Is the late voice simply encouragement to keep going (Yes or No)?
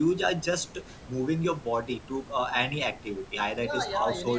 No